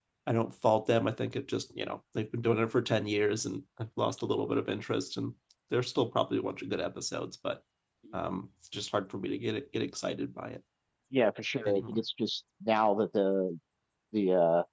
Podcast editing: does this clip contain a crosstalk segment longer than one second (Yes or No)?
No